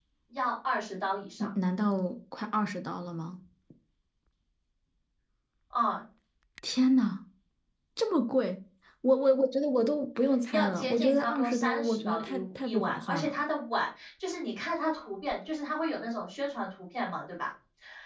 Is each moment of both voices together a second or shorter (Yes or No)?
No